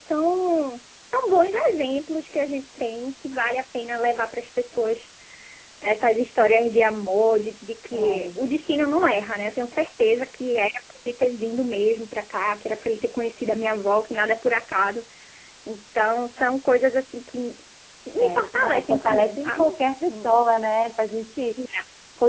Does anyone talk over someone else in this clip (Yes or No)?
Yes